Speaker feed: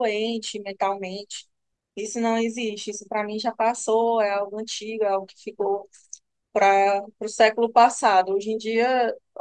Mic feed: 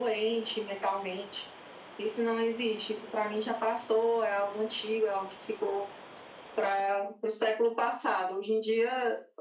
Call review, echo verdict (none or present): present